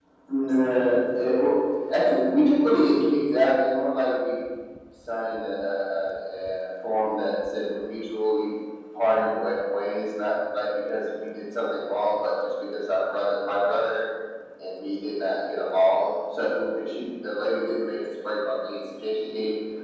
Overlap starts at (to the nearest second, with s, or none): none